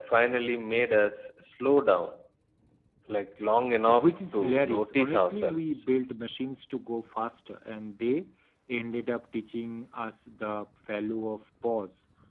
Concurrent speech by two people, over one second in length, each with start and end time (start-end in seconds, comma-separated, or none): 3.9-5.6